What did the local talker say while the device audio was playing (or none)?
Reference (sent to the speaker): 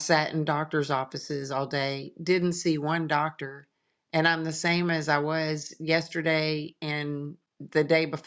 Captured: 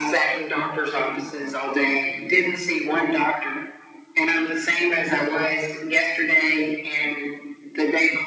none